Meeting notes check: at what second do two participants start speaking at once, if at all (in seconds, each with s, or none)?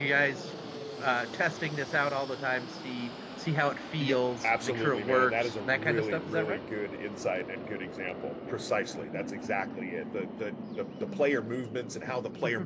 4.0 s